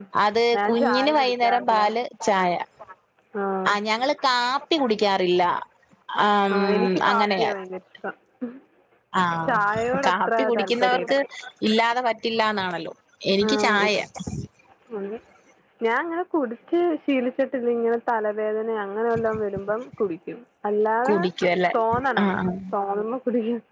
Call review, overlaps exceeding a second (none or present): present